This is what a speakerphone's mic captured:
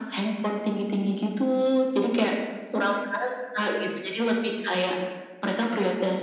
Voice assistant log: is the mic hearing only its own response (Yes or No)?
Yes